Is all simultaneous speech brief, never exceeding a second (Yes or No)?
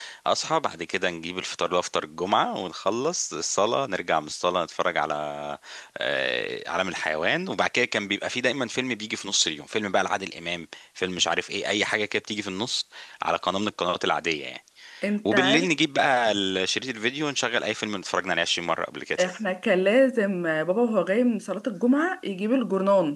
Yes